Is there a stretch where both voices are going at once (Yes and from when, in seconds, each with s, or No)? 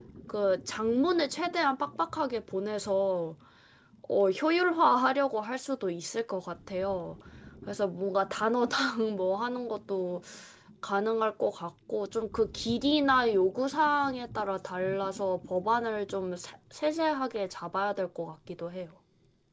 No